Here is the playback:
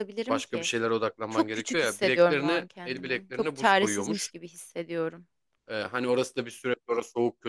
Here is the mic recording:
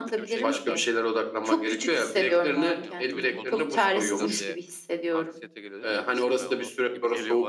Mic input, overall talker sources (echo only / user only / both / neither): both